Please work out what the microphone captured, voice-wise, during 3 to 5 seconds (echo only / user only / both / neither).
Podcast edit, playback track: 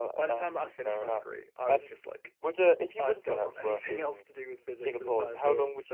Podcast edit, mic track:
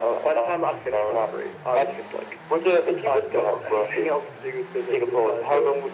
echo only